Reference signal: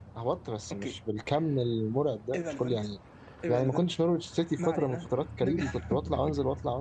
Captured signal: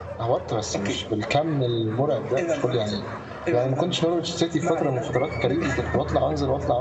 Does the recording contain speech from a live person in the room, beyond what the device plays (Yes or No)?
No